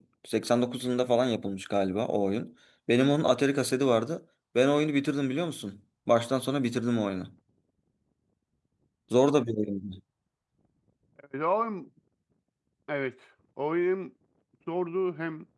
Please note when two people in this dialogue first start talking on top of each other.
none

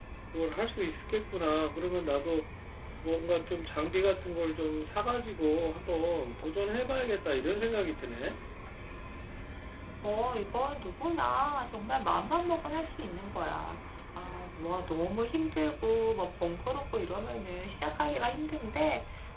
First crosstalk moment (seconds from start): none

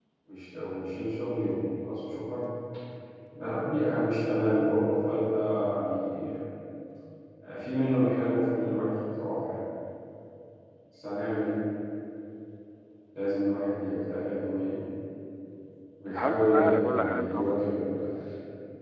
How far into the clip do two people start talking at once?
16.1 s

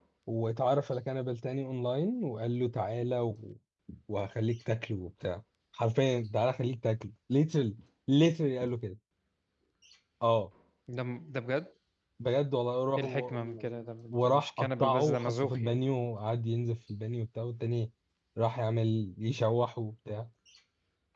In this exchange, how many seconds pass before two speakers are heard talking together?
13.0 s

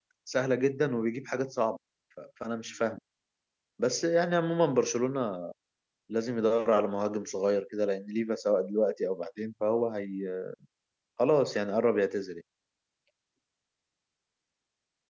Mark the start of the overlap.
none

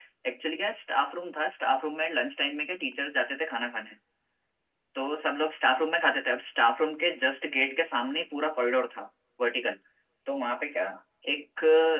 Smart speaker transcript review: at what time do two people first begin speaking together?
none

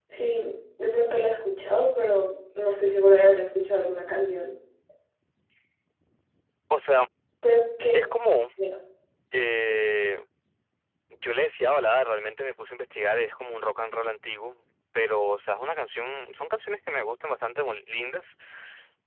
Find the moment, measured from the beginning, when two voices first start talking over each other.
none

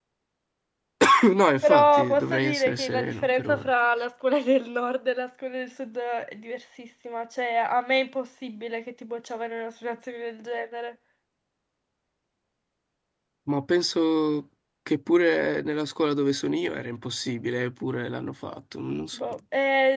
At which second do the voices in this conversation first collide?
1.6 s

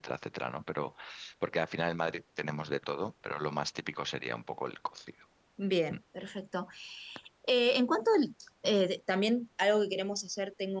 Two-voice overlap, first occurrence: none

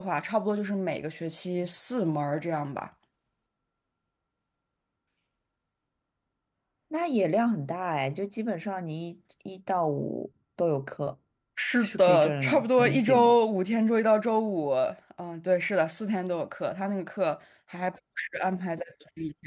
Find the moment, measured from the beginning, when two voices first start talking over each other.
11.8 s

